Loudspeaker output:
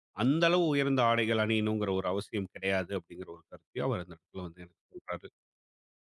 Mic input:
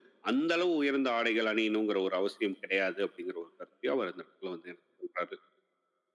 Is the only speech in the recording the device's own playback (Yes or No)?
Yes